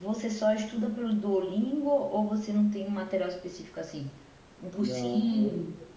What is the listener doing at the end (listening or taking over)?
taking over